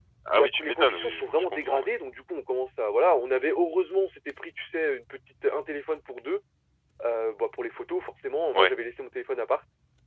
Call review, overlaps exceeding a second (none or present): present